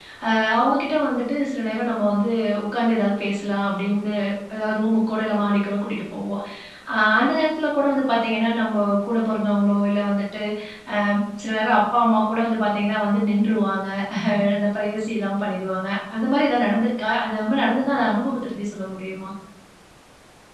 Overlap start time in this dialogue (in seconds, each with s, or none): none